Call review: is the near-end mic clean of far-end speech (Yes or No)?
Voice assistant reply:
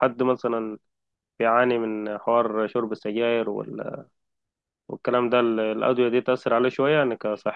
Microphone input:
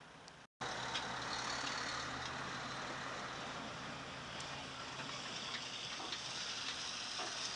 Yes